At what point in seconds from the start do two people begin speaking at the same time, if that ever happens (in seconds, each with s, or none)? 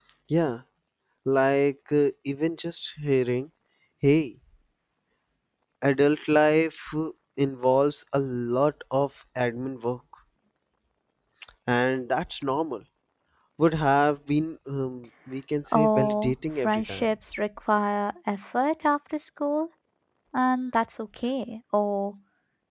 15.7 s